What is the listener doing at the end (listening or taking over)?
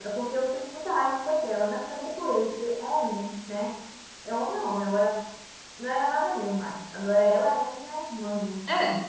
listening